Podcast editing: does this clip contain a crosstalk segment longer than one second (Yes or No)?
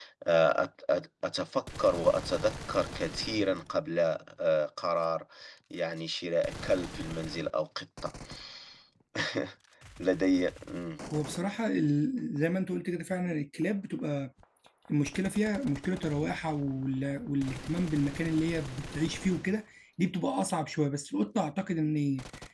No